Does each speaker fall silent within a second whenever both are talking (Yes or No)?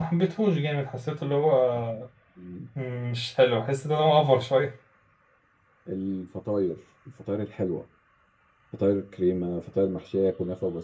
Yes